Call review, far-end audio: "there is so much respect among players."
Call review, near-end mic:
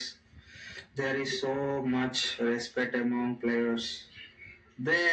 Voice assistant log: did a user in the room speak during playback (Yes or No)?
No